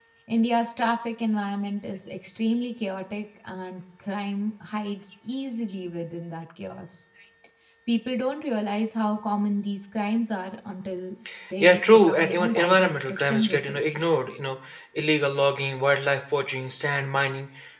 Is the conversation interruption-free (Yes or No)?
No